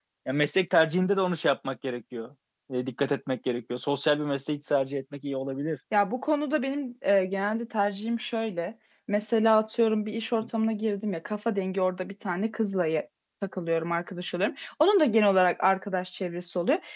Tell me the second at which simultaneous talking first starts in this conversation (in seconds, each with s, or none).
none